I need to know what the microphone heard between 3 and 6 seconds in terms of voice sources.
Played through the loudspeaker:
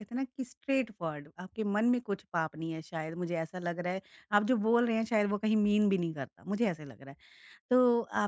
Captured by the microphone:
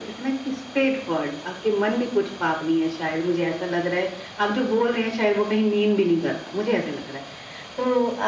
echo only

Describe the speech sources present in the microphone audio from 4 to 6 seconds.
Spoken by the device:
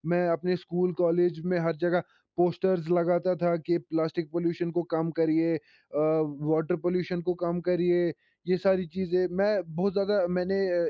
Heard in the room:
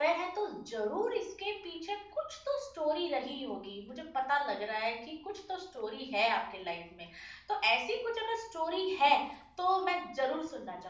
user only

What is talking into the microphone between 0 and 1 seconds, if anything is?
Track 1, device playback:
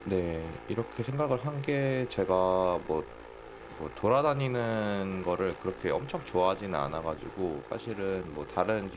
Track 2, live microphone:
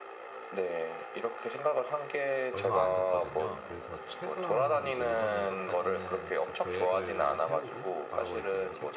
echo only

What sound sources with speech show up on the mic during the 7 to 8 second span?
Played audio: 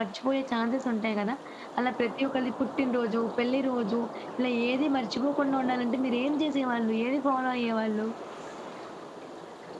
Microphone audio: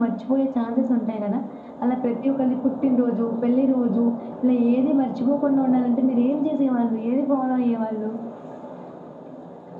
echo only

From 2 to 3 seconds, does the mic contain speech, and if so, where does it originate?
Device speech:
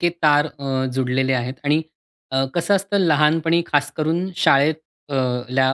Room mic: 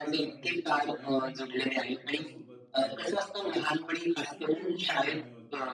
both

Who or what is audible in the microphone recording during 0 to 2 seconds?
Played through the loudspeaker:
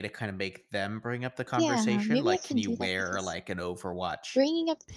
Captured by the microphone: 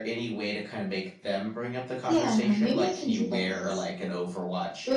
echo only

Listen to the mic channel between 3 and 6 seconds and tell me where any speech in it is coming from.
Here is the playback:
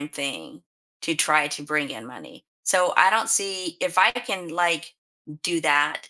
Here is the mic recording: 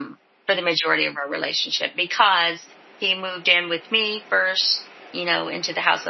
user only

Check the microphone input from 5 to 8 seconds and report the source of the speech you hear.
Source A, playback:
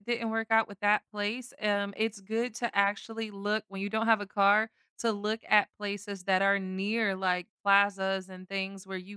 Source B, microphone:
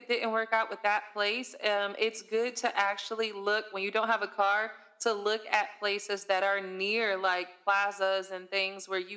echo only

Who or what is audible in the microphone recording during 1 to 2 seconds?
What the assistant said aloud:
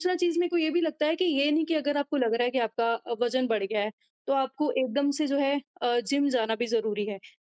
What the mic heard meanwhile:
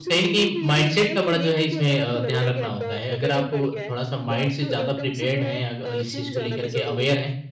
both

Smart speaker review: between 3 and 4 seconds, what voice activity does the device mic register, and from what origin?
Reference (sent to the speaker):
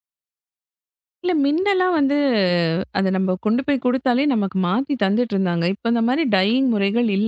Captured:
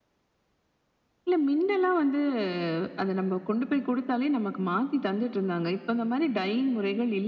echo only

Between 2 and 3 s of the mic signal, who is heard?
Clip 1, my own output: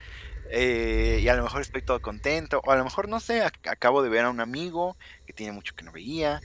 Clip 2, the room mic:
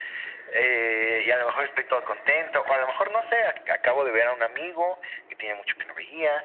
echo only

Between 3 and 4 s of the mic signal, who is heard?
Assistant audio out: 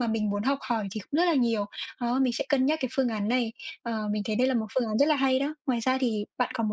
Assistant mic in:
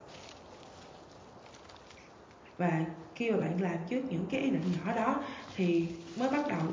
user only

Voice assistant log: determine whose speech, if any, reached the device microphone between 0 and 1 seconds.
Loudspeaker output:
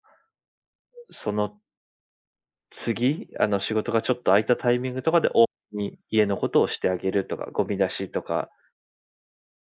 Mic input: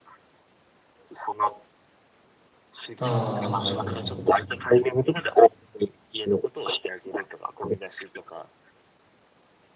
neither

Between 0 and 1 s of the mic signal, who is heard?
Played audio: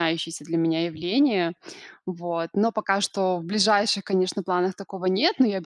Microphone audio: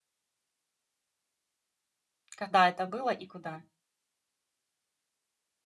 neither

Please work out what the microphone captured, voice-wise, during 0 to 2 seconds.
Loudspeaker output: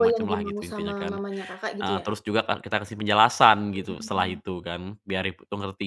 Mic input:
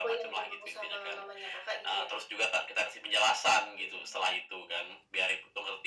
echo only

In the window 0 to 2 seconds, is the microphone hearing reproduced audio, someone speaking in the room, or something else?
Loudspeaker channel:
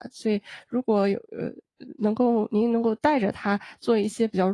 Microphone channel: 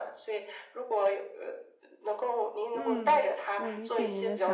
echo only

